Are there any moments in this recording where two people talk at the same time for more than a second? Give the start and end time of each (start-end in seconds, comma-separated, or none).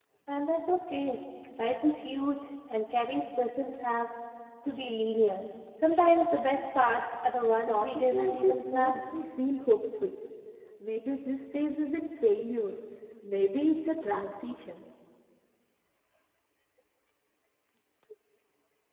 7.7-9.0